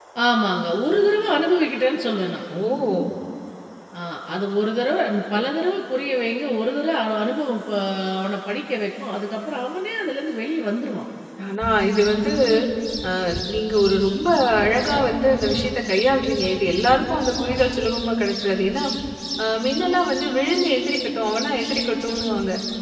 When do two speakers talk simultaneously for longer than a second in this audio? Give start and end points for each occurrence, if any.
none

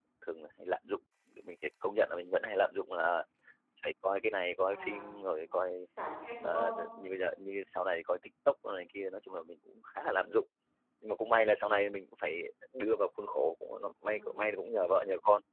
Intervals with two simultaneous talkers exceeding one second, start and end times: none

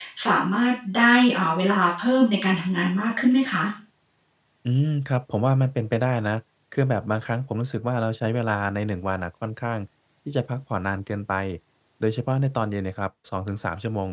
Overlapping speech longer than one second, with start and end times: none

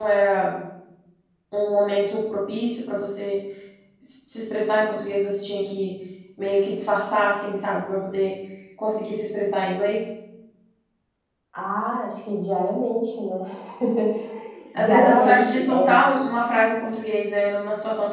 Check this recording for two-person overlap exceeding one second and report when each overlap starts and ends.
14.8-16.0

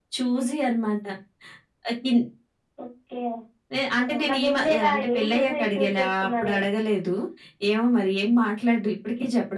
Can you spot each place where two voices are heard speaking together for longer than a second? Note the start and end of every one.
4.0-6.5

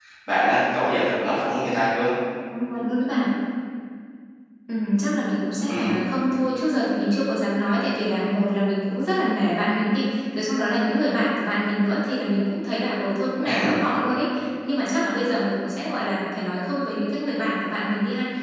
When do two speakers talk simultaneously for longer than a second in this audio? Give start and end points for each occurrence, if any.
none

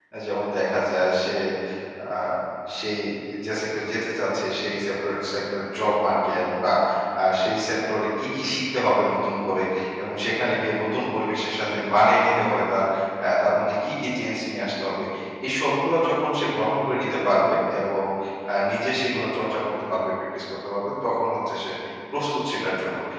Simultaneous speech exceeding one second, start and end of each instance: none

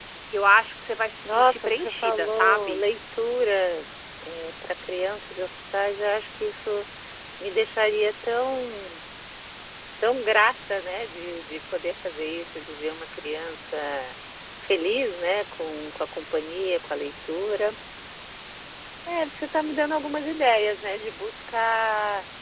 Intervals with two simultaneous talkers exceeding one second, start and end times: 1.2-2.8

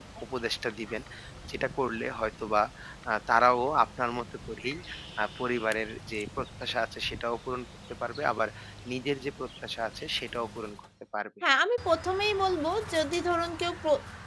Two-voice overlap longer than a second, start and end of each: none

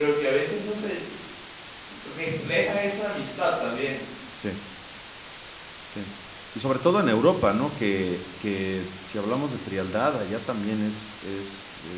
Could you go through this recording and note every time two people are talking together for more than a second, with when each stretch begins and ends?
none

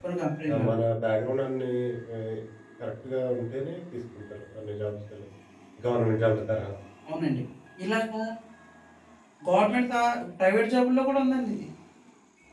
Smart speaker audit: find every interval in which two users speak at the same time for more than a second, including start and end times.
none

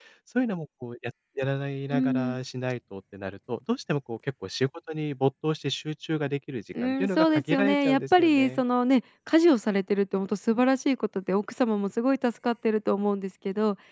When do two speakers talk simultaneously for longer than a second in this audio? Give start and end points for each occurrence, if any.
6.8-8.6

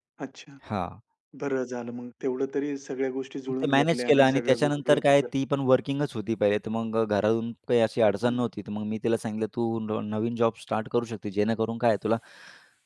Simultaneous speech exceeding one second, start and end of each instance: 3.6-5.2

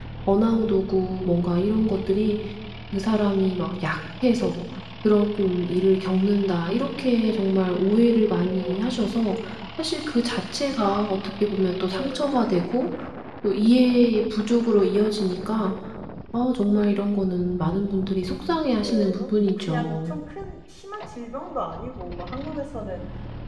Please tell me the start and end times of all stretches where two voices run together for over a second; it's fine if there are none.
18.8-20.2

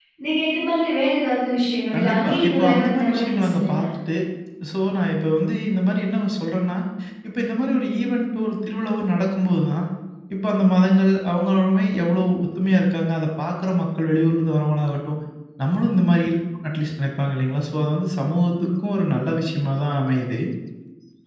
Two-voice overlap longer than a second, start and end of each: 1.9-3.8

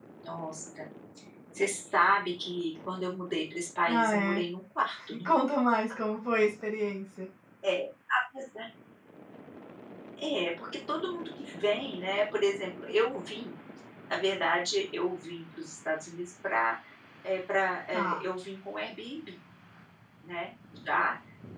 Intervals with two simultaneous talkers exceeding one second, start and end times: none

